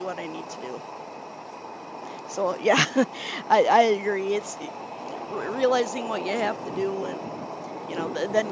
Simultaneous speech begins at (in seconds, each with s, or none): none